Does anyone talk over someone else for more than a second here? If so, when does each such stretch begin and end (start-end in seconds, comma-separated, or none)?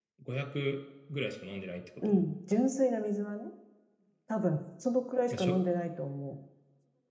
none